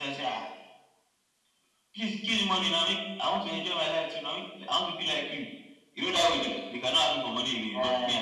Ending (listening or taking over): taking over